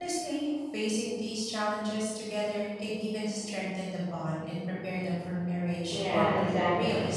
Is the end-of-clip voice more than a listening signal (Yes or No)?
Yes